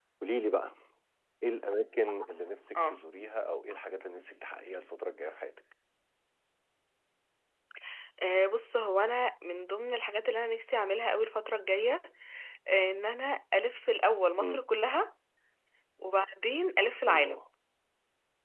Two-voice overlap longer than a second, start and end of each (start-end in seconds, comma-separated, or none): none